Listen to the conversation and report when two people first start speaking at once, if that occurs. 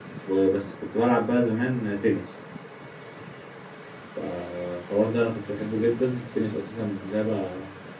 none

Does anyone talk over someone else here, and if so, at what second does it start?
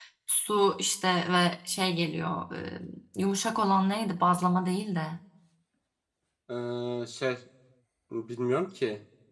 none

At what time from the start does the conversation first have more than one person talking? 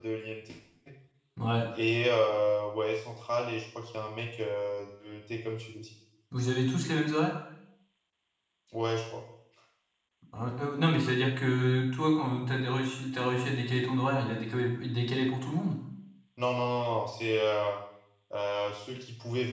none

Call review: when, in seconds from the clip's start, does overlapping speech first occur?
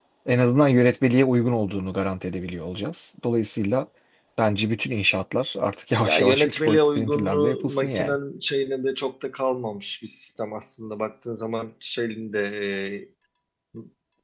6.0 s

